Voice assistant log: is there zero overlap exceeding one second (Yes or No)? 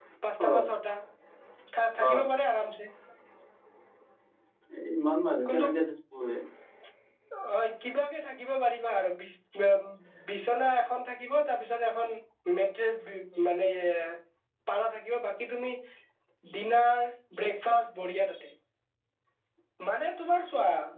Yes